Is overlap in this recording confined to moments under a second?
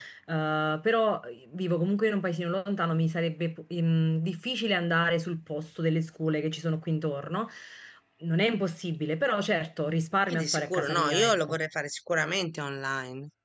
No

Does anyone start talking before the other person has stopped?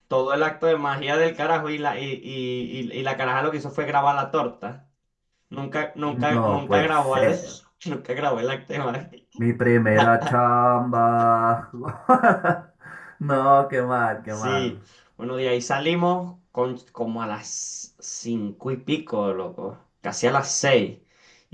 Yes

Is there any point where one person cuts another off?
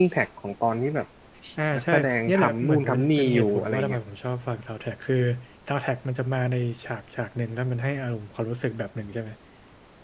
Yes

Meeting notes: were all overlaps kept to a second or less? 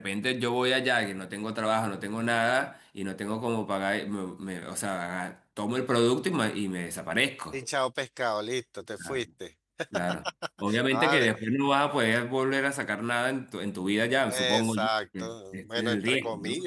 No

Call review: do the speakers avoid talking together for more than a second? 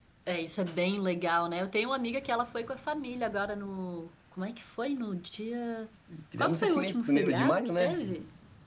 No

